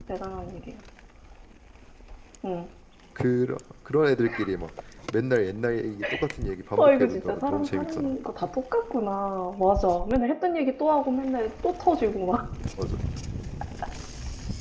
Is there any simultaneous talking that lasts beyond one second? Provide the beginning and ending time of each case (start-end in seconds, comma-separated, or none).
6.8-8.2